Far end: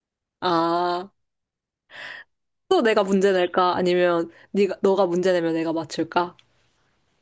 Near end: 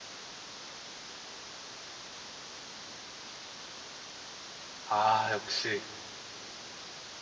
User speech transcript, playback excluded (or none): 아, 역시